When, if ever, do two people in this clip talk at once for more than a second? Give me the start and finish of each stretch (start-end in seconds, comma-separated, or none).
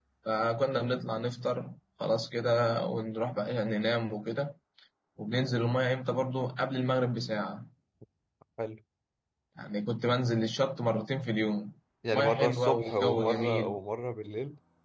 12.1-13.8